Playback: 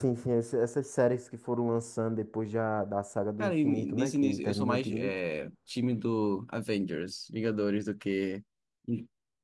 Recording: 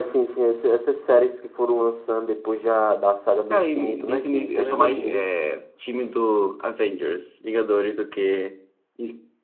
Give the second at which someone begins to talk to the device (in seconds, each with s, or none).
4.5 s